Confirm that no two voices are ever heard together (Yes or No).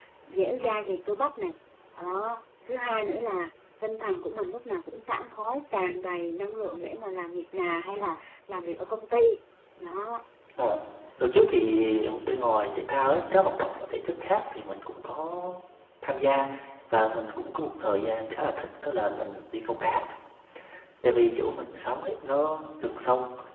Yes